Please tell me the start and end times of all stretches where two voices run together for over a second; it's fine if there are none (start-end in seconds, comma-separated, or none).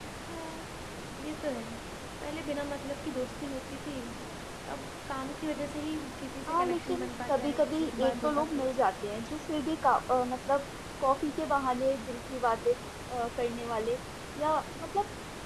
6.5-8.7